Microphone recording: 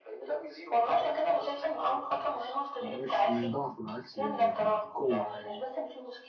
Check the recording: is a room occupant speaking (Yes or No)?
Yes